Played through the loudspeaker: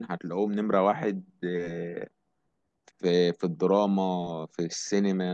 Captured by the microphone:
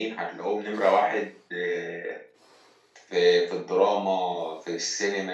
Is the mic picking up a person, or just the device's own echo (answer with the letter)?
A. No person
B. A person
A